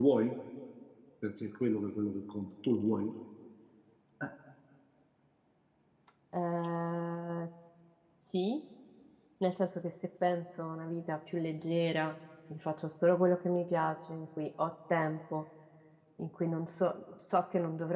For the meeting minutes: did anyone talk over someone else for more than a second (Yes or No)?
No